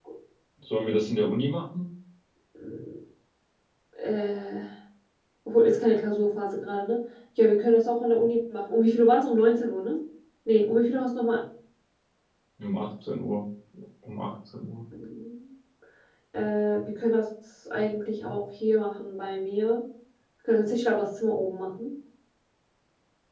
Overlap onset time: none

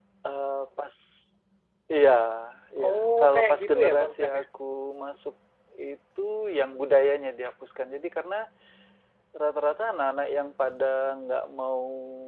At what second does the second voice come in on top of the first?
3 s

